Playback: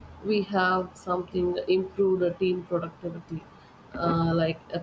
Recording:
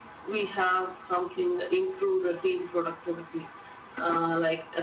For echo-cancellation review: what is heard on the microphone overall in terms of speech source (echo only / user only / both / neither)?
echo only